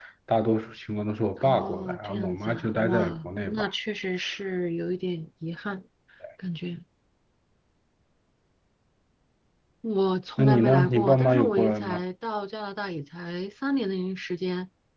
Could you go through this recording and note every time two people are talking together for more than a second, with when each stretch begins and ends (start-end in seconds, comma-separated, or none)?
1.4-3.7, 10.4-12.0